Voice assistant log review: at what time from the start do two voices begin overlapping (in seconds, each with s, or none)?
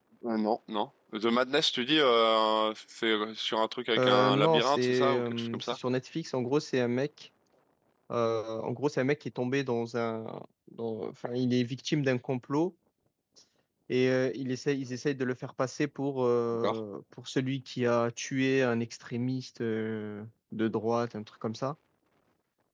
4.0 s